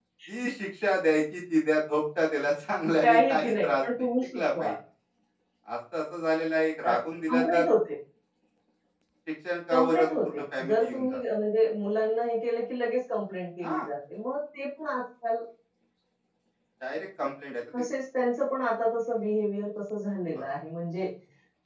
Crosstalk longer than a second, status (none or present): present